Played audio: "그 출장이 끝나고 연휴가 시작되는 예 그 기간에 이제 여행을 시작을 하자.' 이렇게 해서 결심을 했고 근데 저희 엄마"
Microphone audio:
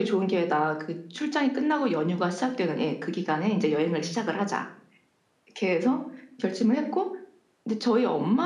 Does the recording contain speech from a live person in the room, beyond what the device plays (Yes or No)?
No